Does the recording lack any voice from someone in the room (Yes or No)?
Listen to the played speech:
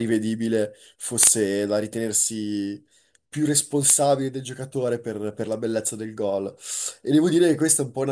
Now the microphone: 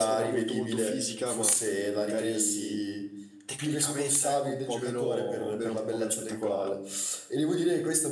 No